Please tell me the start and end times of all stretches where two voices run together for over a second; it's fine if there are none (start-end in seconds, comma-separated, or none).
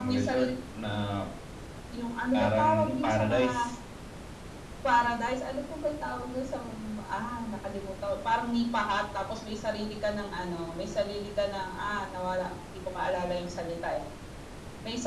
2.3-3.7